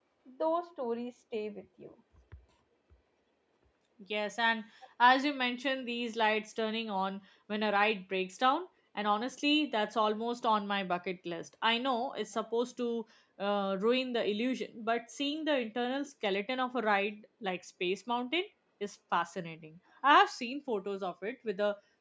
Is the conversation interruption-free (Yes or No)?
Yes